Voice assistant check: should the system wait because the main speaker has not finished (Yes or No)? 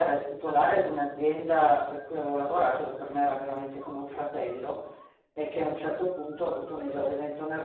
Yes